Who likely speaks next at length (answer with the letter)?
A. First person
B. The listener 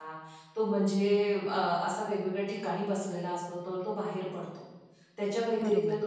A